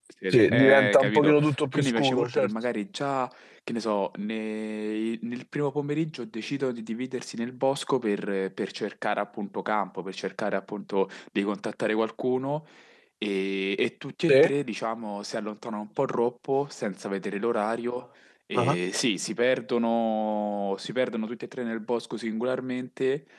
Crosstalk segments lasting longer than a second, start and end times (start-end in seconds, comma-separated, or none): 0.5-2.5